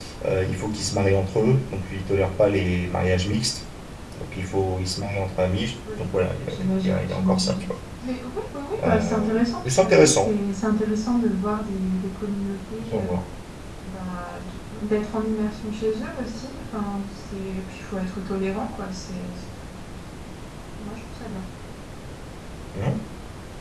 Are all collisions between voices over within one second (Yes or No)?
No